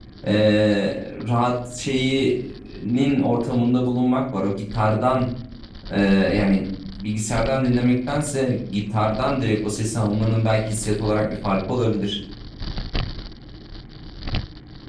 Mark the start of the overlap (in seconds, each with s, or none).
none